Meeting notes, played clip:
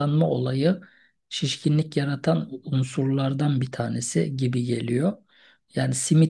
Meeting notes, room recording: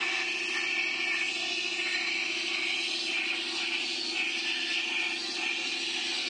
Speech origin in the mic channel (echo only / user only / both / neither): neither